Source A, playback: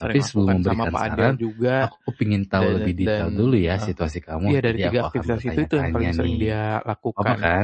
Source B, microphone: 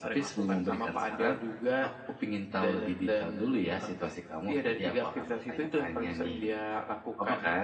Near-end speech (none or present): none